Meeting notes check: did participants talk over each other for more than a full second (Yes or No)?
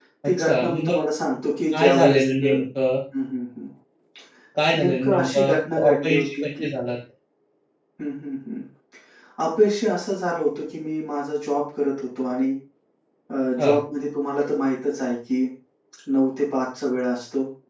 Yes